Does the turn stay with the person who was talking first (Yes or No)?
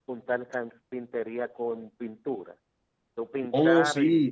No